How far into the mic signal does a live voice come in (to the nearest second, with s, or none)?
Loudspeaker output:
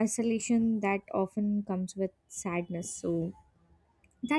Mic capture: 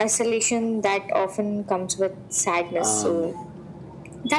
3 s